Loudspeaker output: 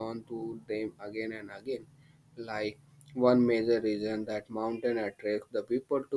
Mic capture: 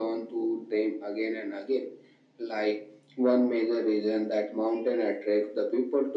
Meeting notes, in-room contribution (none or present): none